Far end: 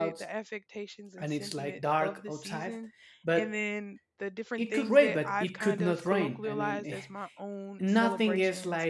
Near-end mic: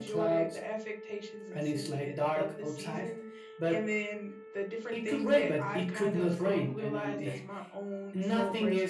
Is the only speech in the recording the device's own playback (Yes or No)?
Yes